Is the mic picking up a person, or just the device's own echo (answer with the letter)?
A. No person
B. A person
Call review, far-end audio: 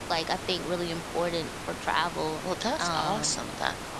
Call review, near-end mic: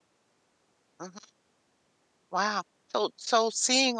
B